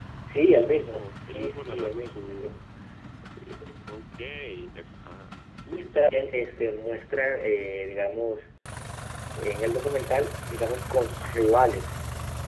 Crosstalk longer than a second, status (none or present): present